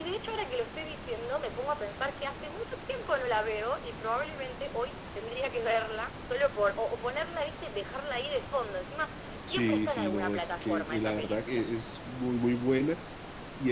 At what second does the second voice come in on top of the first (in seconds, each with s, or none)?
9.5 s